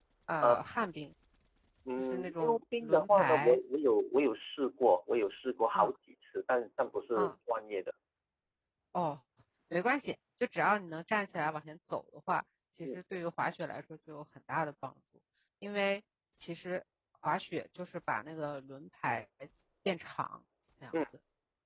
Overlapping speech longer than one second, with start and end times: 2.1-3.6

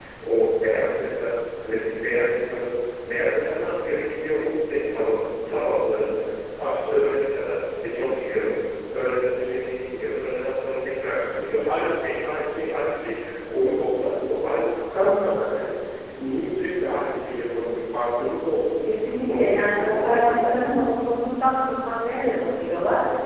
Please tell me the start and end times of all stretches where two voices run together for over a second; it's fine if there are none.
19.2-20.5

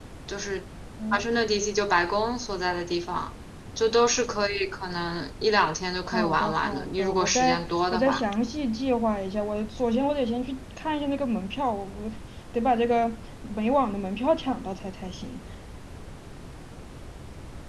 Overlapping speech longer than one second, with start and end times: 6.1-8.2

